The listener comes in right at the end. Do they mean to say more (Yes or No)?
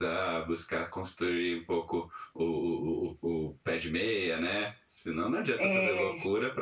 No